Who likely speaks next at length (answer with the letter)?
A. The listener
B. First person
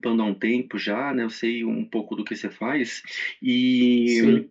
B